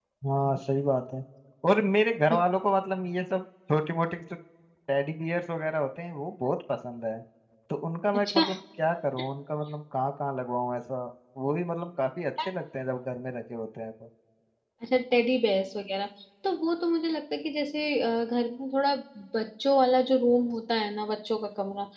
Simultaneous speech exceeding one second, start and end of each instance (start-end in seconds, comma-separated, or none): none